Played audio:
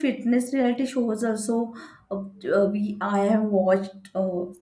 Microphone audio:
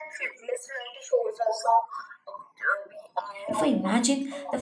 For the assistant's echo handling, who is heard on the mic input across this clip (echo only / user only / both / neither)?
both